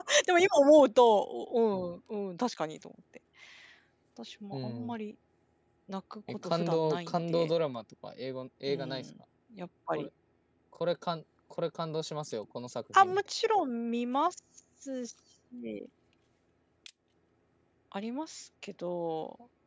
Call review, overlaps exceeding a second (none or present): present